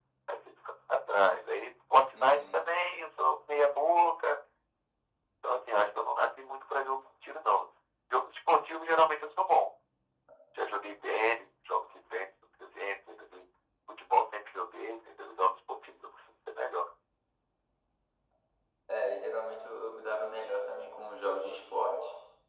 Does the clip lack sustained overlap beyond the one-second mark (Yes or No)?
Yes